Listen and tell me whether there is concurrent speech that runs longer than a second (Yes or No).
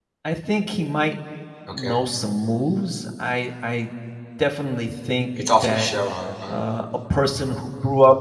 No